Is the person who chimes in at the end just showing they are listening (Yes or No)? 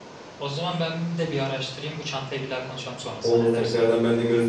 No